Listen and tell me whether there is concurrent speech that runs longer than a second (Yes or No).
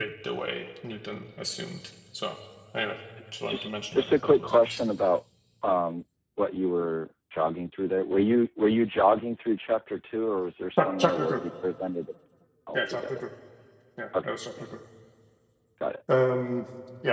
Yes